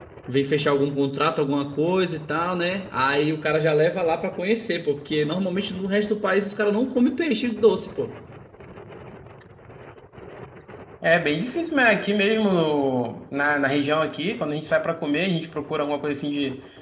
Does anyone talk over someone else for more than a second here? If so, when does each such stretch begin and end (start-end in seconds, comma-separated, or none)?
none